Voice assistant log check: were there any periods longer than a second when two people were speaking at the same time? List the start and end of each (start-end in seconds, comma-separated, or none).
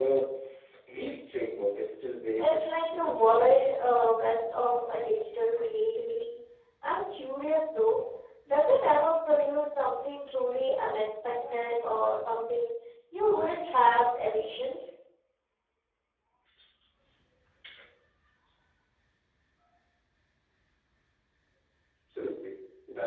2.4-3.6